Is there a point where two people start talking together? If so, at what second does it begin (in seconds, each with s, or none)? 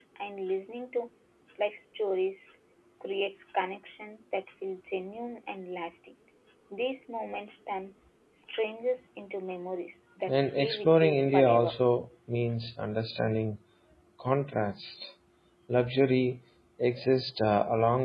10.3 s